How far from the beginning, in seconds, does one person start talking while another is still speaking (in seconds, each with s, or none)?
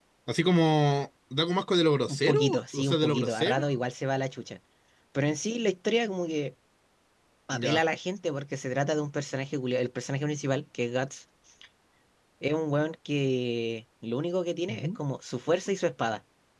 2.1 s